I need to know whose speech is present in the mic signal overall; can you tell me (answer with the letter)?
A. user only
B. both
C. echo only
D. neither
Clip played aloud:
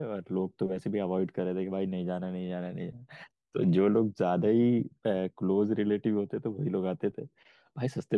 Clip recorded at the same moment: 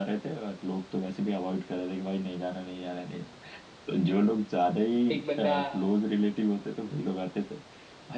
B